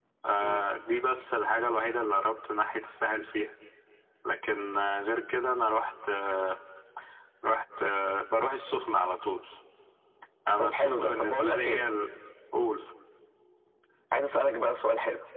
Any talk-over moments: Yes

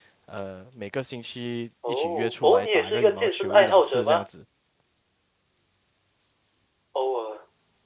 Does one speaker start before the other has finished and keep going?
Yes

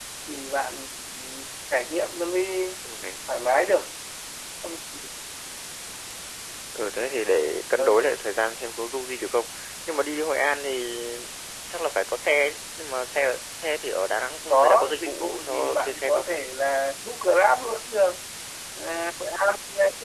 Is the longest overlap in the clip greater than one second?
Yes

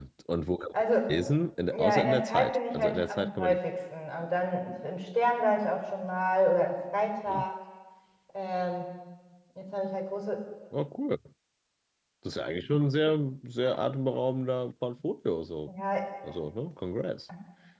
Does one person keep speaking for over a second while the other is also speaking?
Yes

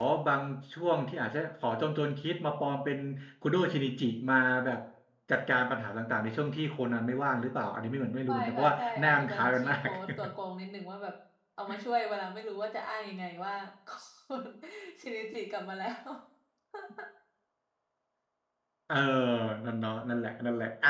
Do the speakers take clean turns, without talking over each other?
No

